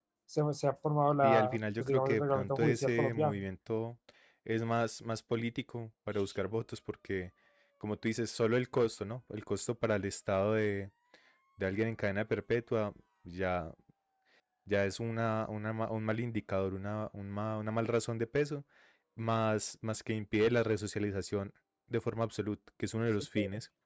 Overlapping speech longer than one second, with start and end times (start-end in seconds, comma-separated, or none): 1.2-3.4